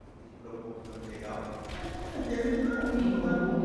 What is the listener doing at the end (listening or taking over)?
taking over